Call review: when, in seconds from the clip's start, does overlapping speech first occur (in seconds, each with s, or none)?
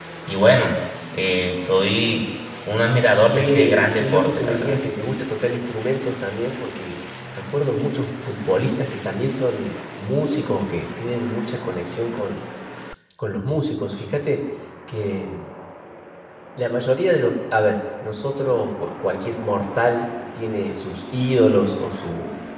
3.3 s